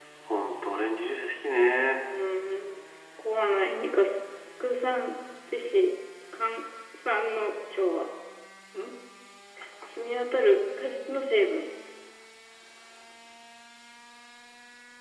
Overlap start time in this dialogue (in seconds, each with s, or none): none